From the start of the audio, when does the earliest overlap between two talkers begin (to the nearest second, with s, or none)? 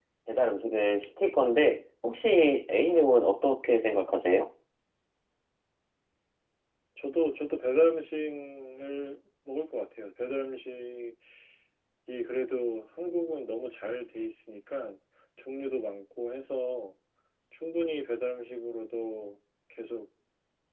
none